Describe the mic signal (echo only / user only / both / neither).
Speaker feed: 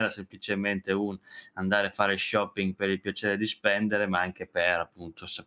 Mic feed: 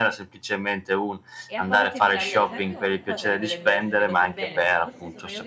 both